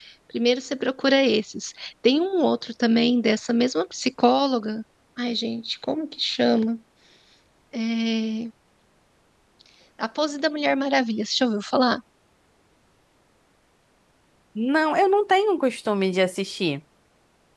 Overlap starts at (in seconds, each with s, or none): none